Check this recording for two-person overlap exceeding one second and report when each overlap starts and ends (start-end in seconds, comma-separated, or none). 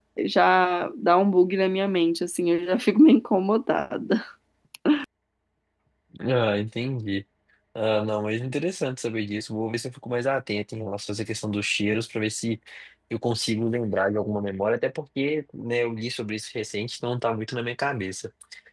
none